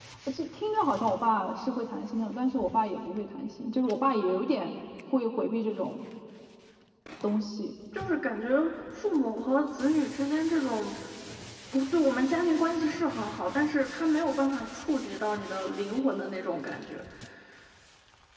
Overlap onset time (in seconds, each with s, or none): none